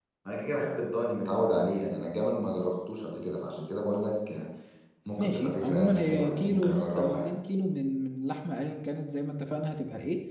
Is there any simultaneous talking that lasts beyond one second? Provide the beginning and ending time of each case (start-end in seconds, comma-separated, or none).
5.2-7.3